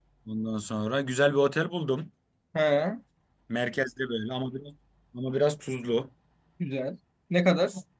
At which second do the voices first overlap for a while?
none

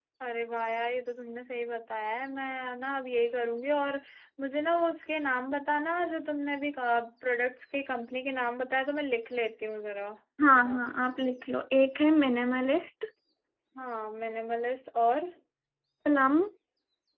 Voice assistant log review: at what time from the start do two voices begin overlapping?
none

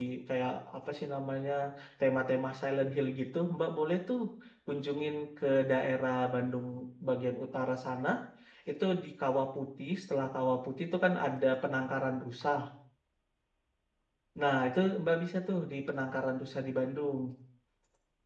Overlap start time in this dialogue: none

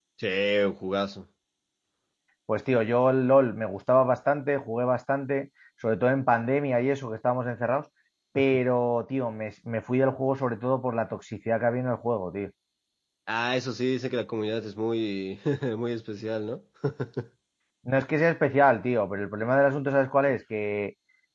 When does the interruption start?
none

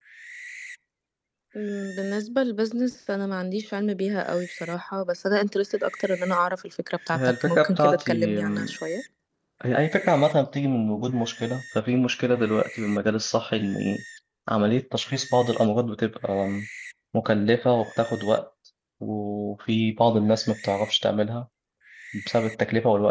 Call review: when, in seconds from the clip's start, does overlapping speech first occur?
7 s

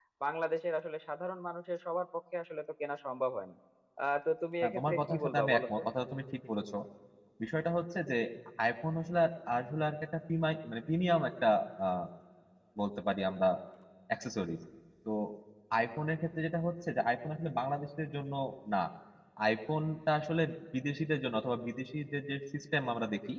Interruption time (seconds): 5 s

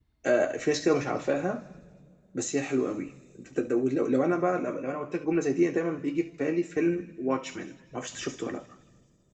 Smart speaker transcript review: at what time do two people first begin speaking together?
none

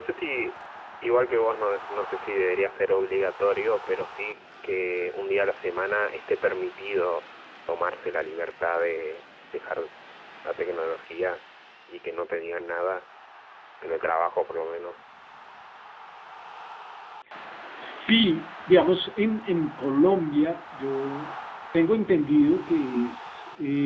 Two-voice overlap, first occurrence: none

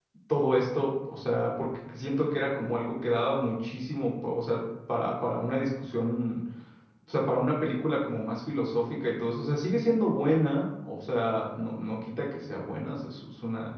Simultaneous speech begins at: none

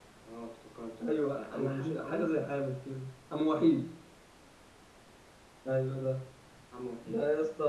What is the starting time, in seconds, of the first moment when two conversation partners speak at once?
1 s

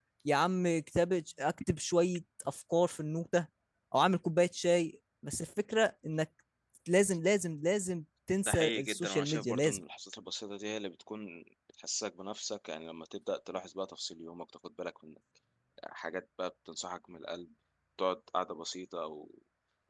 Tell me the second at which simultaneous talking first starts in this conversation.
8 s

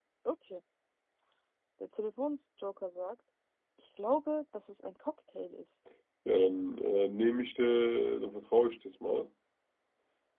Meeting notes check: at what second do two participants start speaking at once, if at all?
none

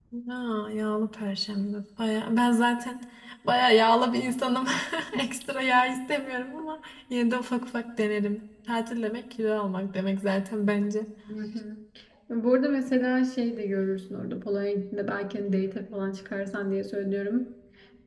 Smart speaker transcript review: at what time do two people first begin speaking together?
none

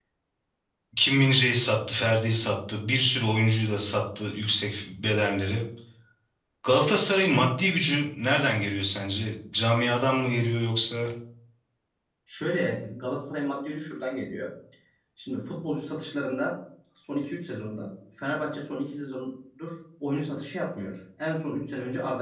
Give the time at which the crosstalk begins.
none

